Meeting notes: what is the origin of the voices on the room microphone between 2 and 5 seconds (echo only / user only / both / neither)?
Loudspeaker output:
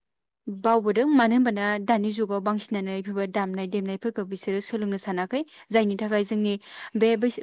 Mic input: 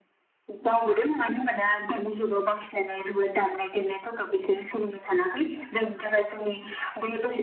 echo only